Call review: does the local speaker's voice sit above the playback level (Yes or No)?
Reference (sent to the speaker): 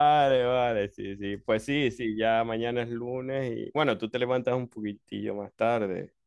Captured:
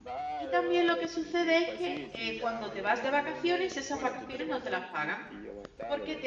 Yes